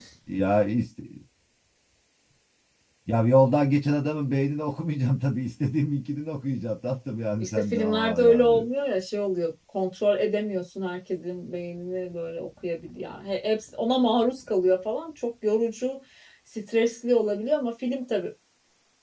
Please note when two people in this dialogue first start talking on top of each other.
7 s

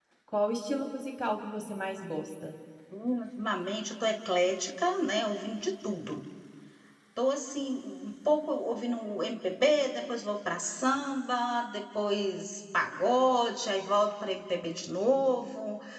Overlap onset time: none

